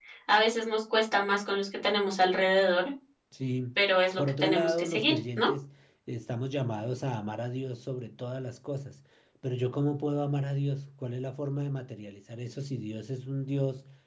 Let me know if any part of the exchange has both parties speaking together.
Yes, from 4.2 s

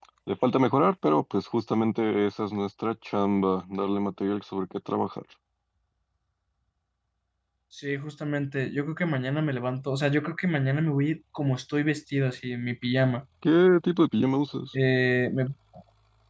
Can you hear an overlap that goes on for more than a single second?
No

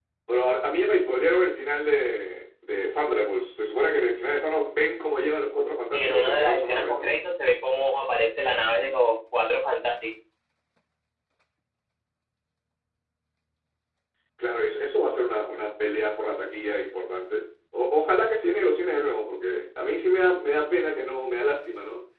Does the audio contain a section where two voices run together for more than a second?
Yes, from 5.9 s

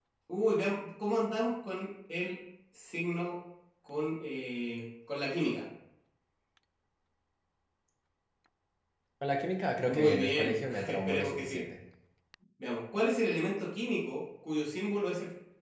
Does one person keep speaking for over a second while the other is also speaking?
Yes, from 9.9 s

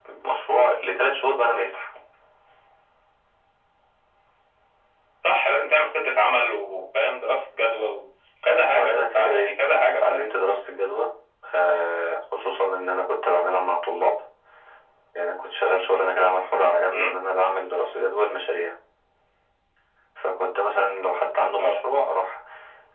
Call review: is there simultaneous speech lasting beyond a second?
Yes, from 8.7 s

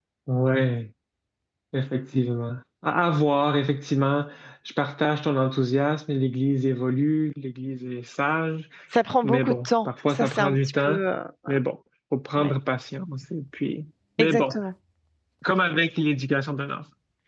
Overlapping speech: Yes, from 9.2 s

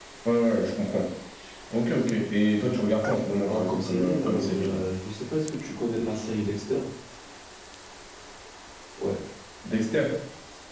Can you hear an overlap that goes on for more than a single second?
Yes, from 3.4 s

